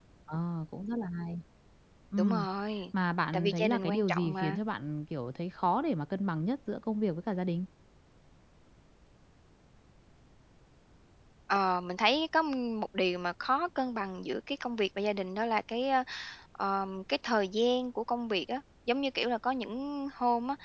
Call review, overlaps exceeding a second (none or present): present